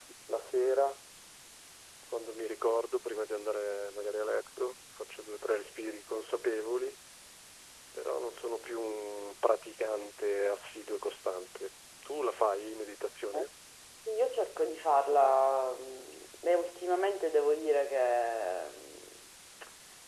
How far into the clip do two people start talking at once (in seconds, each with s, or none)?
none